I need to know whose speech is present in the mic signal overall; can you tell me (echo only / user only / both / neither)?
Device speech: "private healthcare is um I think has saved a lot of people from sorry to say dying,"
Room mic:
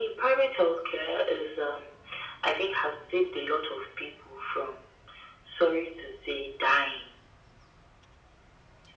echo only